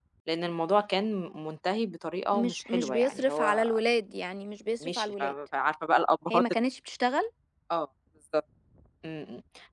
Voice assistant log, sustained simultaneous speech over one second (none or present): present